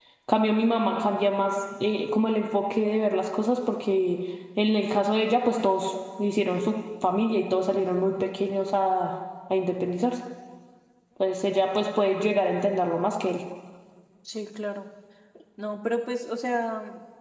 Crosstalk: none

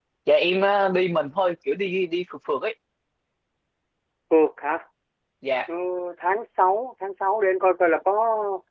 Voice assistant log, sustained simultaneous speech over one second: none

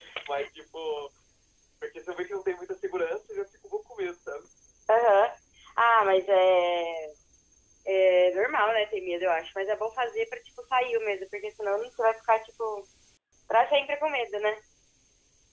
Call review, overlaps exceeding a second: none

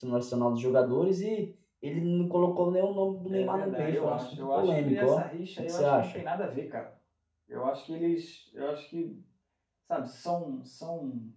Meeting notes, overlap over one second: present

